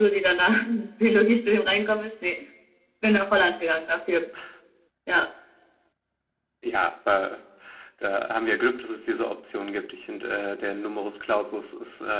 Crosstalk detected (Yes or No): No